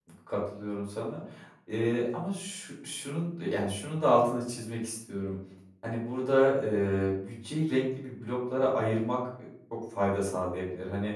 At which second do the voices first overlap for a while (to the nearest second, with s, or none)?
none